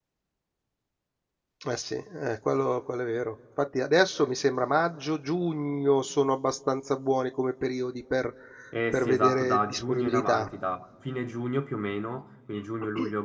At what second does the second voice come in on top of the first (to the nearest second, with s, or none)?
9 s